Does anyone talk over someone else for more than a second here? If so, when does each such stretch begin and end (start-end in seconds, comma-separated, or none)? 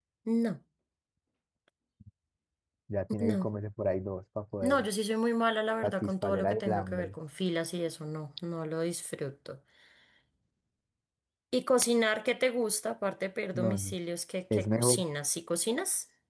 5.8-7.2